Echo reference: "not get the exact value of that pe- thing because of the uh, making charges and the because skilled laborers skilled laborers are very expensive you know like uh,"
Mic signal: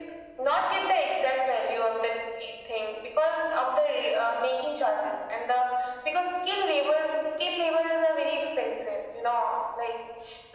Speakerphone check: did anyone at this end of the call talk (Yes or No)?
No